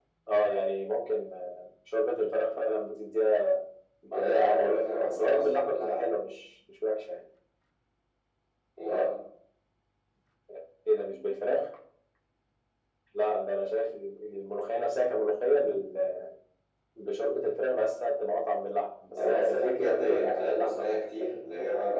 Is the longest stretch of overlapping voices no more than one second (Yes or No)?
No